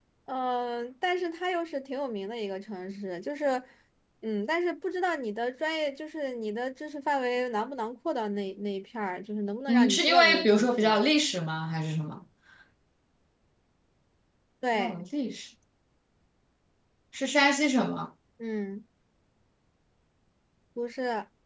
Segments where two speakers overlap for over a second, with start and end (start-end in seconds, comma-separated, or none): 9.7-11.0